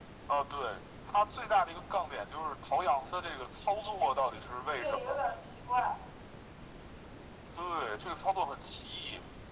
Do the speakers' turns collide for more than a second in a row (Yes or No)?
No